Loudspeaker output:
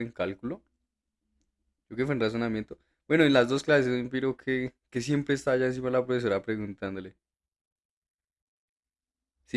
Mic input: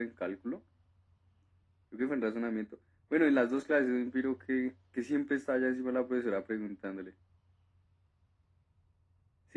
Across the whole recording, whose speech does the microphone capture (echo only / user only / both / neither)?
echo only